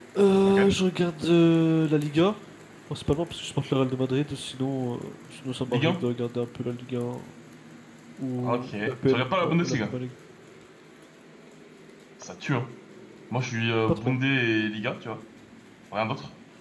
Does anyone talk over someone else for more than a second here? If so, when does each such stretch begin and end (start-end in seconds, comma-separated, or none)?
8.4-9.9